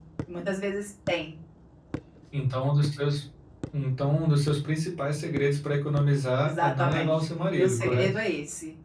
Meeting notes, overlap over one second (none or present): present